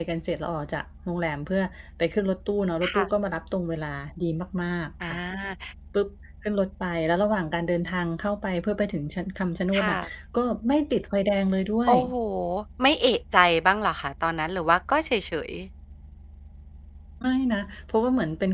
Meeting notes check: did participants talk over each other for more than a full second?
No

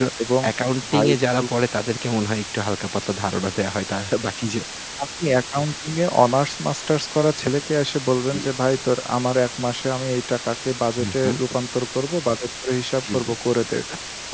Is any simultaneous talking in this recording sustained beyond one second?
No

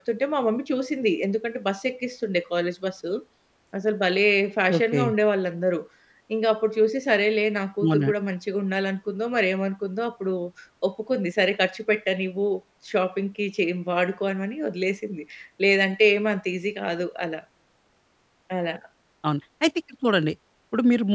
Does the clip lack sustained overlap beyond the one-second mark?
Yes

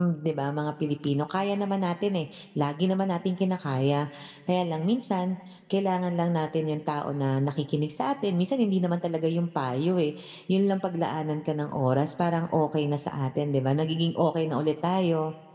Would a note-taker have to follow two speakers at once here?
No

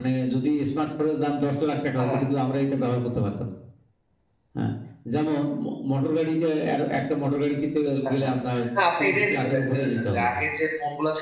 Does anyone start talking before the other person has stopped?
Yes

